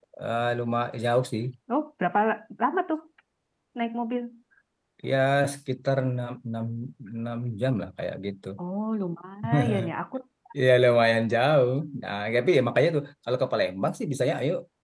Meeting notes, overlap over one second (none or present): none